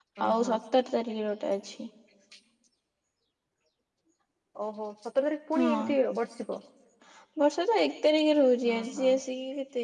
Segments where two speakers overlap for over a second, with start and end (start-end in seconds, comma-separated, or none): none